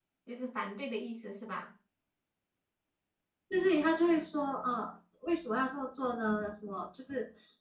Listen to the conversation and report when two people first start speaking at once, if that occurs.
none

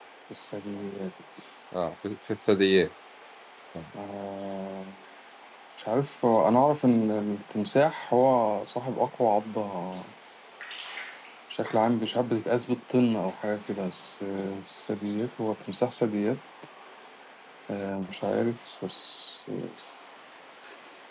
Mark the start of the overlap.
none

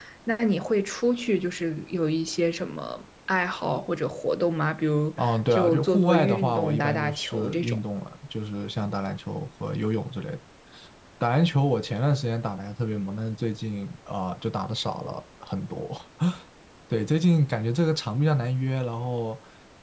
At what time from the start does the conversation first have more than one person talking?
5 s

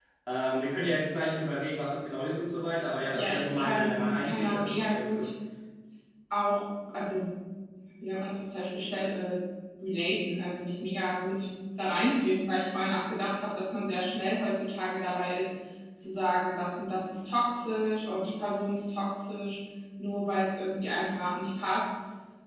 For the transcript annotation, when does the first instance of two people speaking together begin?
3 s

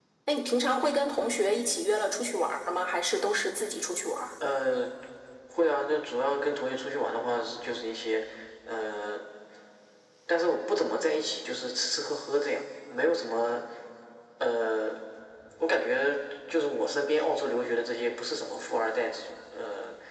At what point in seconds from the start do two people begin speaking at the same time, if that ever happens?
none

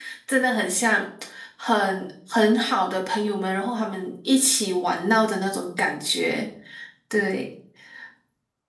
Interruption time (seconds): none

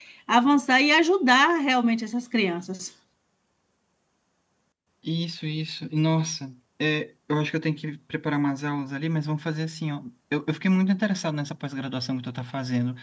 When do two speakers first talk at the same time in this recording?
none

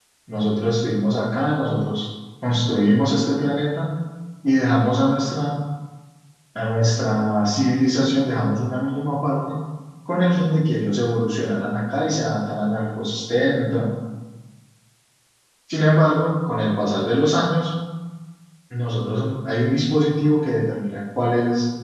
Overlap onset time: none

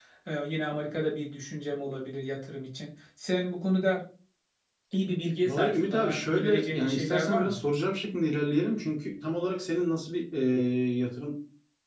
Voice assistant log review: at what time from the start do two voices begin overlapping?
5 s

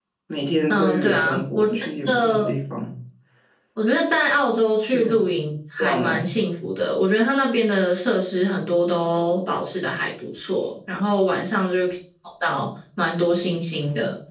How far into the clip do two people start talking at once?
1 s

